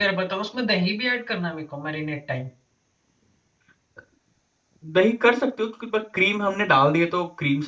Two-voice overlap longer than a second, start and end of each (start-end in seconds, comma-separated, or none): none